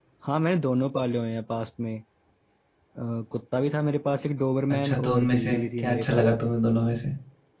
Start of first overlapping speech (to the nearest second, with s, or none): 5 s